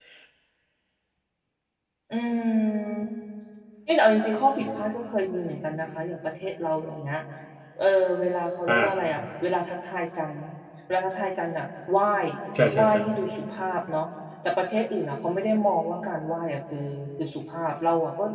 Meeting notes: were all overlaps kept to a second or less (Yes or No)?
Yes